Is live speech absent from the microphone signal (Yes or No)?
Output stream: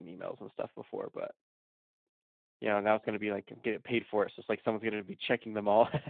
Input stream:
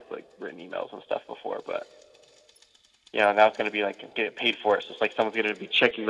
Yes